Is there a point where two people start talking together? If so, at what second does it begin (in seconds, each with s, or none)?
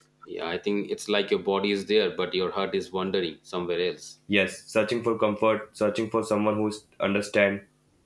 none